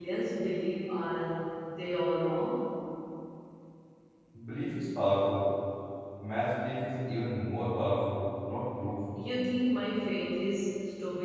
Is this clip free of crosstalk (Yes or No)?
Yes